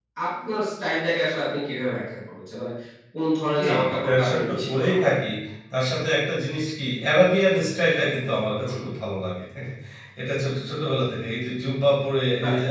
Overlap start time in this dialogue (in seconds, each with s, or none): 3.6 s